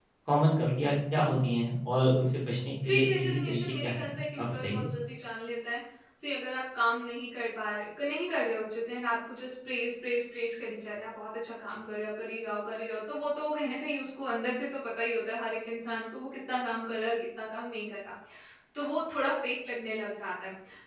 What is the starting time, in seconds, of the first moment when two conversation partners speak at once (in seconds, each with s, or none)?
2.8 s